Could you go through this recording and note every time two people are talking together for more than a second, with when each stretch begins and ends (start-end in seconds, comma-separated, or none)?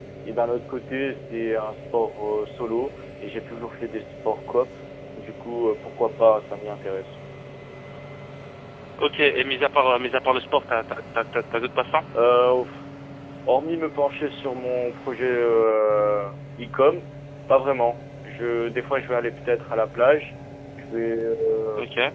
none